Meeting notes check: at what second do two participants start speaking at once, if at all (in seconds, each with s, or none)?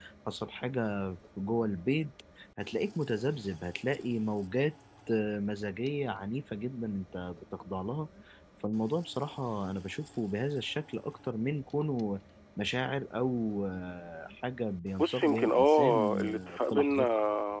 15.0 s